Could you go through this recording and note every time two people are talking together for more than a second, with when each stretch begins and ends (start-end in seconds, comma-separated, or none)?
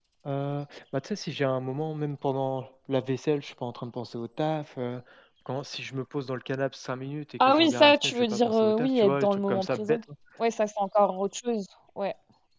7.4-10.0